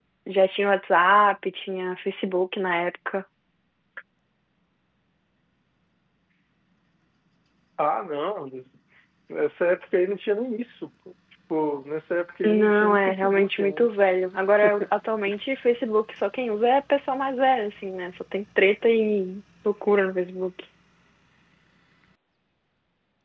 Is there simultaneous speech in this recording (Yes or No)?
Yes